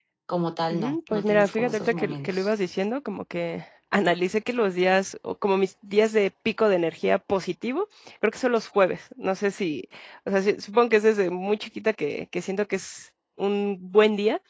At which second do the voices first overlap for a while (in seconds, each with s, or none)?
0.7 s